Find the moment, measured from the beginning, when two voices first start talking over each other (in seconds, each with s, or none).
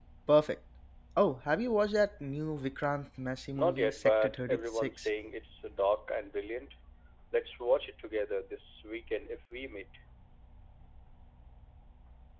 3.6 s